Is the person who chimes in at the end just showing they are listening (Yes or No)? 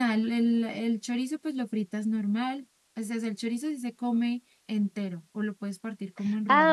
No